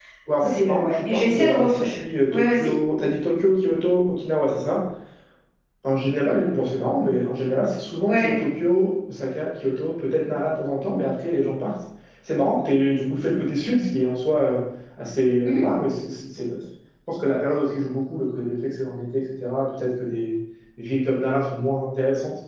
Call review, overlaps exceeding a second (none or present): present